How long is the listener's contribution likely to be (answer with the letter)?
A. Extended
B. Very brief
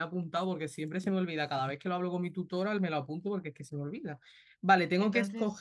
B